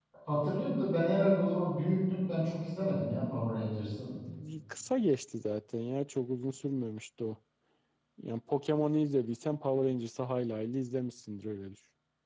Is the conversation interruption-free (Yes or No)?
Yes